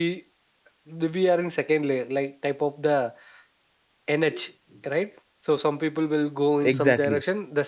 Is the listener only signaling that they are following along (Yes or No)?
Yes